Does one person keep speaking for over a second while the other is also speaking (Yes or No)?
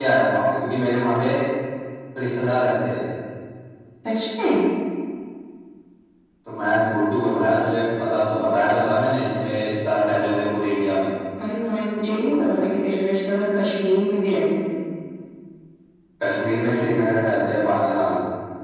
No